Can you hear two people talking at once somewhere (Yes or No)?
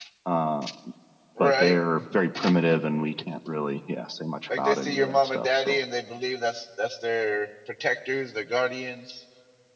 Yes